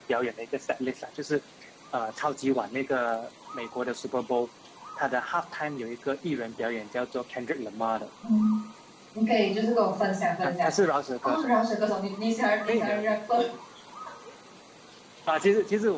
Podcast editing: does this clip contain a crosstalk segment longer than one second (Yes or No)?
No